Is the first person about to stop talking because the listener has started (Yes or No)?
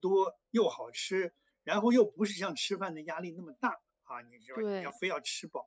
No